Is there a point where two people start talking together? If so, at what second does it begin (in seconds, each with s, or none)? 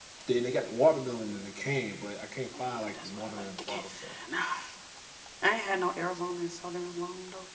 2.5 s